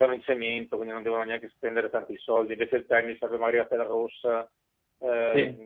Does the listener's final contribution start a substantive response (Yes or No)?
No